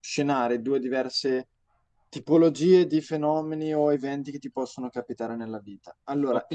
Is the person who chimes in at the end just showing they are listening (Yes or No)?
Yes